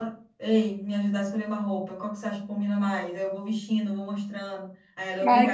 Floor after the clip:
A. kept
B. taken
B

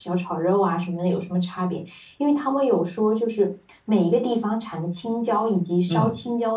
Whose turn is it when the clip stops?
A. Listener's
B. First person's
B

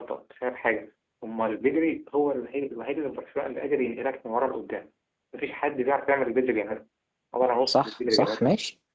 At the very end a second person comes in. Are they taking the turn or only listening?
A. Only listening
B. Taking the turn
B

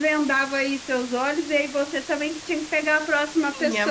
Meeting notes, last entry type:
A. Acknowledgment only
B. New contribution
B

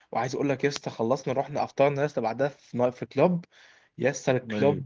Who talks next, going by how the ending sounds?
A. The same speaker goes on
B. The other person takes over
A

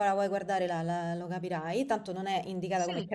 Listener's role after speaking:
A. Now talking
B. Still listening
B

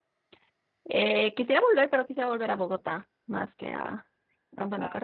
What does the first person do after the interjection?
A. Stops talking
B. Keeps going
B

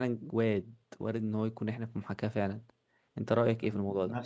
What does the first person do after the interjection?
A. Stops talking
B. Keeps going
A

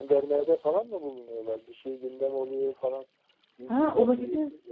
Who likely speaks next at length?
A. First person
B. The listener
B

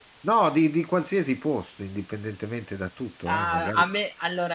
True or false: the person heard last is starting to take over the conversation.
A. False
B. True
B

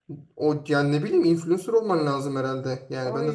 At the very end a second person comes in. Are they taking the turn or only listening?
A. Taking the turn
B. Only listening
A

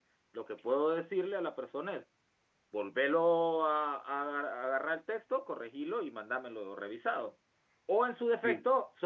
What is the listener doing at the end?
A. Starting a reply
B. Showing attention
B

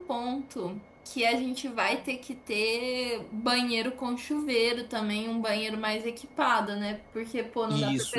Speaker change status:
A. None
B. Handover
A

